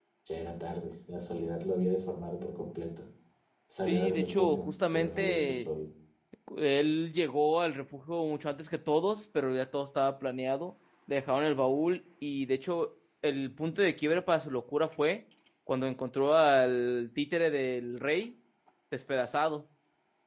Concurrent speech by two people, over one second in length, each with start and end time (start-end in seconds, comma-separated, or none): 3.9-5.7